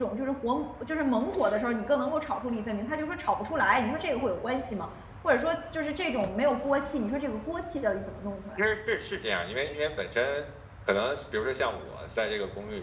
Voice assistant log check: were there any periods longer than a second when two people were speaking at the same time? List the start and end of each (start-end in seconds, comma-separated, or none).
none